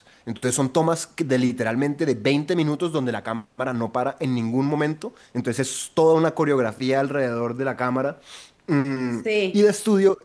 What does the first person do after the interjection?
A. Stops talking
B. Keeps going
B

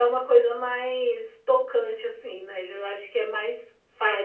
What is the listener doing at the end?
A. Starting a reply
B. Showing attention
A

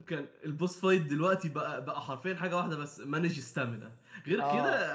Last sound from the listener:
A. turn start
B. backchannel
B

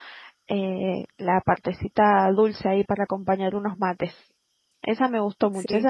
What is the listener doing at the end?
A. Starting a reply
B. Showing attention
B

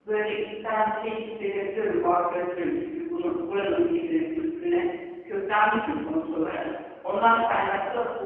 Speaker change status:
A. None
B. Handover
A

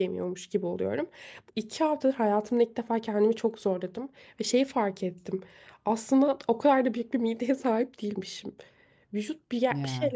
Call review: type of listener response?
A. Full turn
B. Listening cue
B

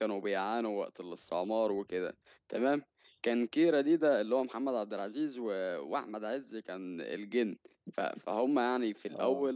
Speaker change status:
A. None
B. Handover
A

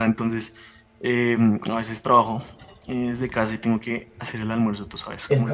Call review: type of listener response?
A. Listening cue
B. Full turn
B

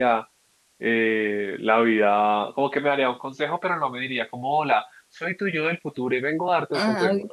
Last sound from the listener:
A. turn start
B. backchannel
A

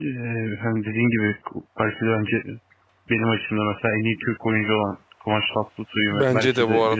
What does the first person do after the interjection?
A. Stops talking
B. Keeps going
A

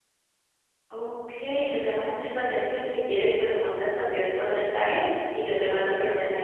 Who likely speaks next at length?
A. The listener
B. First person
B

